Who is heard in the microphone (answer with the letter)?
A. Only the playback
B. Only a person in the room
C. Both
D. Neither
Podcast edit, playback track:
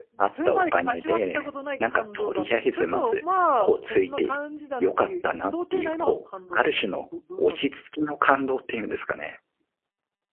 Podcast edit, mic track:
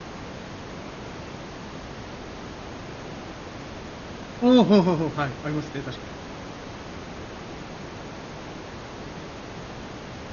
B